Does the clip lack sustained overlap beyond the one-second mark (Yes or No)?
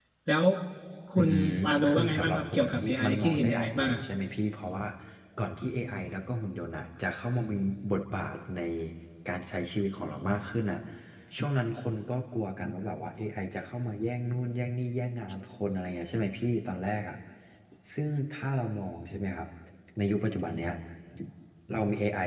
No